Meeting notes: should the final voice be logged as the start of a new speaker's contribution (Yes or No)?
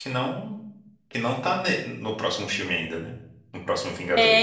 Yes